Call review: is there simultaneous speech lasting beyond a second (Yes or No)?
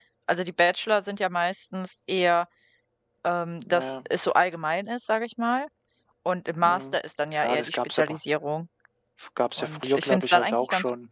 Yes